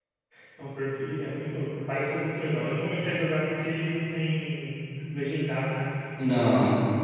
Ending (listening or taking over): listening